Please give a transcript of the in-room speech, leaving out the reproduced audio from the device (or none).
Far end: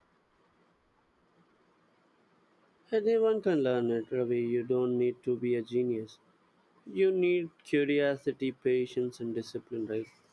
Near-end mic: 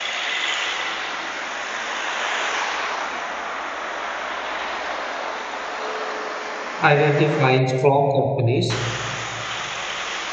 identifying strong companies